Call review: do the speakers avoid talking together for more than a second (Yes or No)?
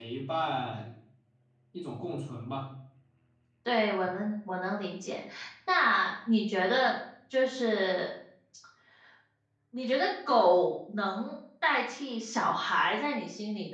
Yes